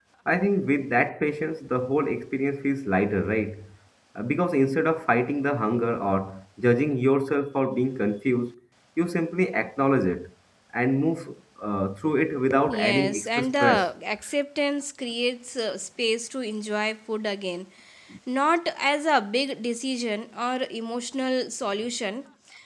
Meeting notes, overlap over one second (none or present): present